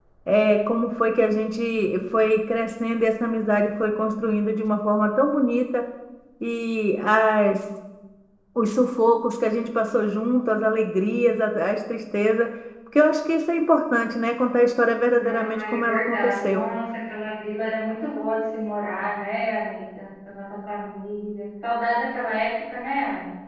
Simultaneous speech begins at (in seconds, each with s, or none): 15.2 s